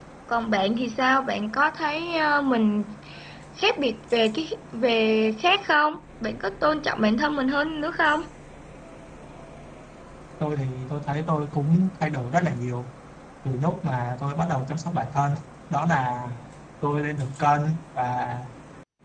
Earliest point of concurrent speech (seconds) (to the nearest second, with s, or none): none